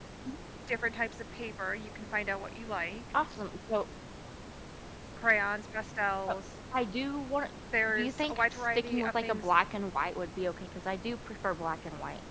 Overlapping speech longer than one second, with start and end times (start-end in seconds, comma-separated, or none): 7.9-9.5